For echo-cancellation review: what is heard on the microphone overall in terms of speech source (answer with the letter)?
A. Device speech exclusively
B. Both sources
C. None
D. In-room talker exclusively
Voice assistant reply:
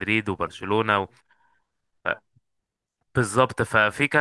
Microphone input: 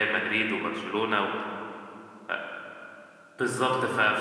A